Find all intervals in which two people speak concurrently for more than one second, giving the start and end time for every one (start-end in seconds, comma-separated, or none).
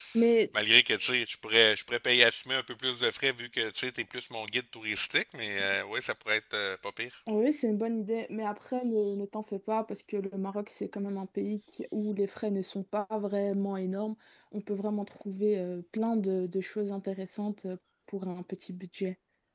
none